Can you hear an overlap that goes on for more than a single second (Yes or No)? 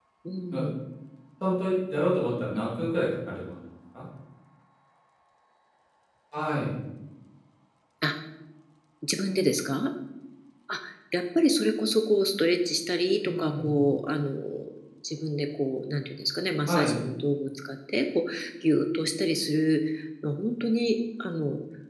No